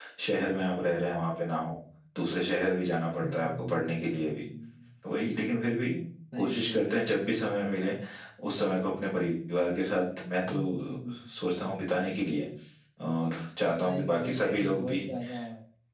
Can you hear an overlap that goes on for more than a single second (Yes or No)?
Yes